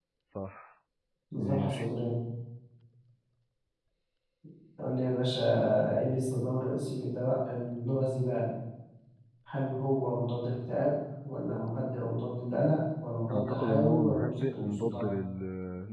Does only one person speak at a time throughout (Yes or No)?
No